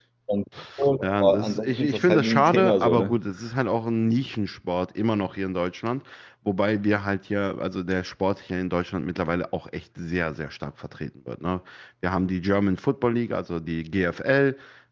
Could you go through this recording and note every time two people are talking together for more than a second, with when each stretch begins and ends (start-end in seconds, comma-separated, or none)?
1.0-3.1